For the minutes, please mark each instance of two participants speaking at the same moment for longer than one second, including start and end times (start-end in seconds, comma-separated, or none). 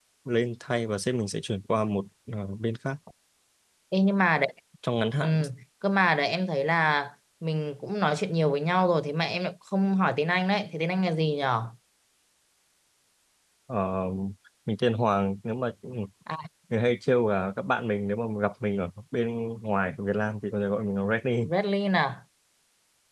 none